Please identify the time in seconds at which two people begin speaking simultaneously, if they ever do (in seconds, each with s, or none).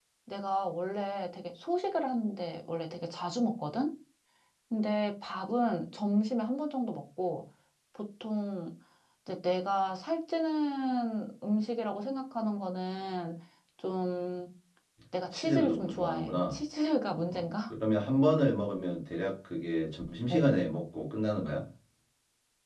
15.3 s